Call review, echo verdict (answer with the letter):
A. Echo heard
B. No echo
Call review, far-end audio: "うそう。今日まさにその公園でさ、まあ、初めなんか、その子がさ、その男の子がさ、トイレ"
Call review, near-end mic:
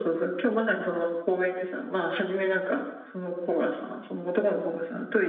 A